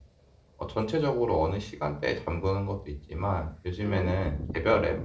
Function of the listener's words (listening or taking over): listening